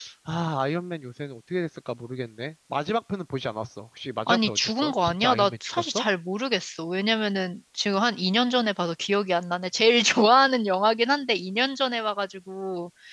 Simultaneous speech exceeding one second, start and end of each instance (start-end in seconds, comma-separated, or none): 4.3-6.0